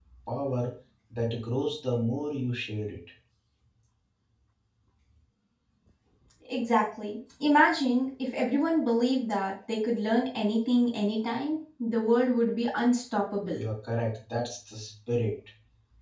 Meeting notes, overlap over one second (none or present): none